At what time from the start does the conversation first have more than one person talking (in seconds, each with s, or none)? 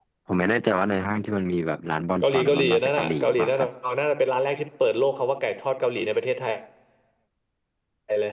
2.2 s